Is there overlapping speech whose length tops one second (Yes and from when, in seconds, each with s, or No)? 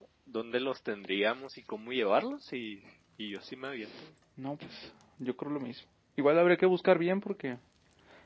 No